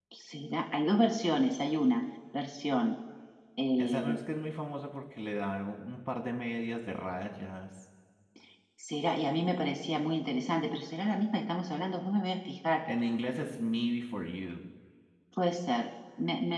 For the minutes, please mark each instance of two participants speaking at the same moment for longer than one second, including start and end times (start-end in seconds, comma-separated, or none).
none